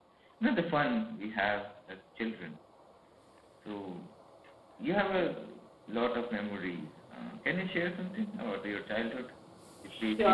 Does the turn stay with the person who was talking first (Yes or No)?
No